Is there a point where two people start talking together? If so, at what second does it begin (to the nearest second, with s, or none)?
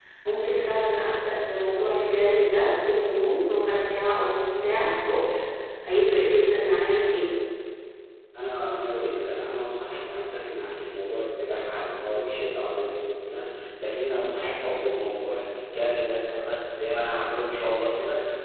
none